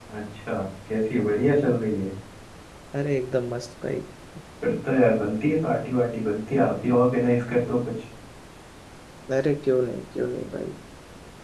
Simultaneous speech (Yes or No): No